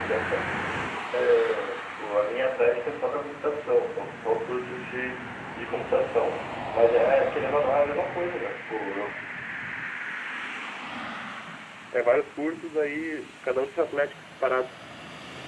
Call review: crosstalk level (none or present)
none